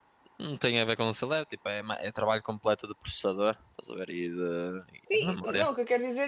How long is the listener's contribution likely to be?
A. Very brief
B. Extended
B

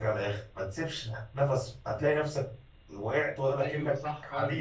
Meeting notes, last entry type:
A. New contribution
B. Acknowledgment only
A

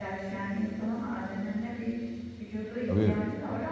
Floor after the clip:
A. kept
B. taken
A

